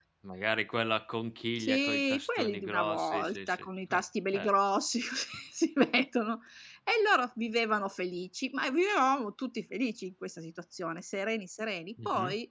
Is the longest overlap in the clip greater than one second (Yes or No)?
Yes